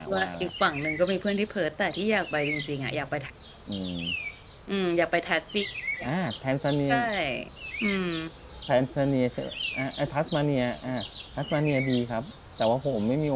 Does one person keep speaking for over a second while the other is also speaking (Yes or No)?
No